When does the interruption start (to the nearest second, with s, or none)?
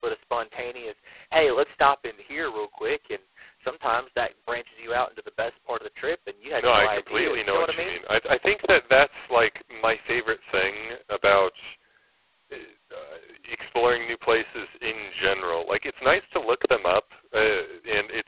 7 s